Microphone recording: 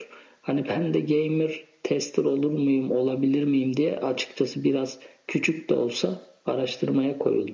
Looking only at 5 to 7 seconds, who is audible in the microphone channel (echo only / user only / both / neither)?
echo only